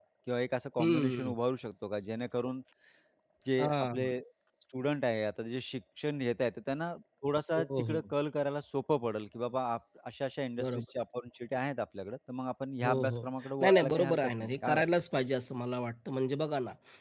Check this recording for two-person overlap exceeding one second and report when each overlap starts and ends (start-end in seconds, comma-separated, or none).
13.6-14.8